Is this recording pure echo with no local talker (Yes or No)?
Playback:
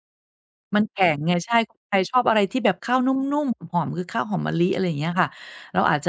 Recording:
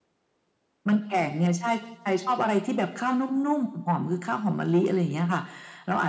Yes